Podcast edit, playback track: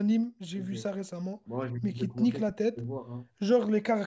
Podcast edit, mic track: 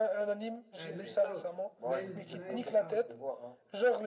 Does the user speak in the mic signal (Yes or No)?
Yes